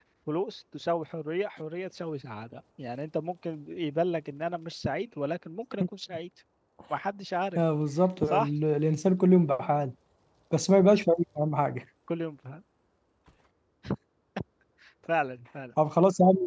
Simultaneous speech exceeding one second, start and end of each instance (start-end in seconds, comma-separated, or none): none